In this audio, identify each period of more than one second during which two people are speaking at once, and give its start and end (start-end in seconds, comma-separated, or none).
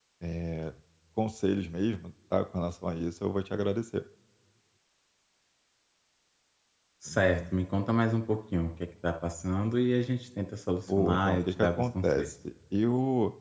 10.9-12.3